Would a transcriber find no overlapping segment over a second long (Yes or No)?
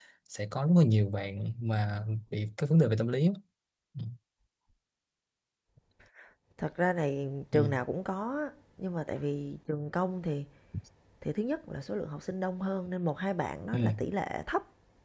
Yes